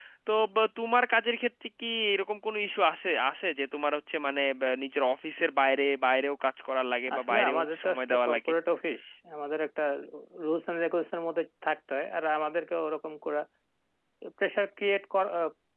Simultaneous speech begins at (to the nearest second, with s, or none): 7 s